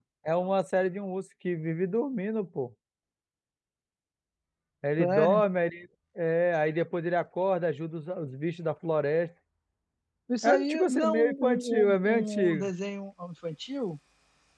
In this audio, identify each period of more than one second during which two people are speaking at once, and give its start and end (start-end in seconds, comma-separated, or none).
10.4-12.7